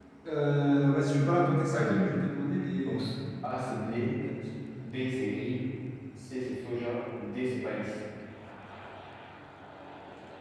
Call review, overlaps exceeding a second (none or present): none